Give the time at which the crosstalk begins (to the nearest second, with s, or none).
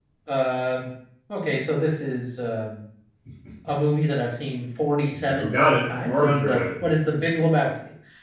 5 s